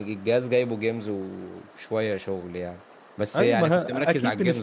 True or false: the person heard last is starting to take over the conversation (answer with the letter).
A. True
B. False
A